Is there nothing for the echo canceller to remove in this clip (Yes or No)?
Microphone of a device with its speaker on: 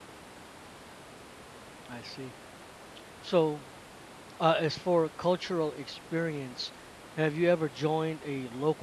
Yes